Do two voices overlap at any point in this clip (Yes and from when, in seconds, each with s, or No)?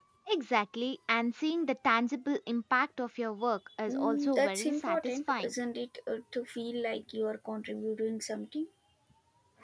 Yes, from 3.9 s